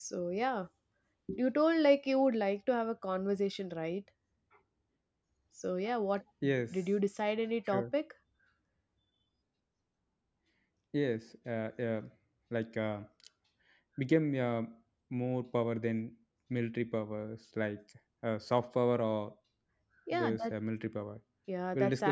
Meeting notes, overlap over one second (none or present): none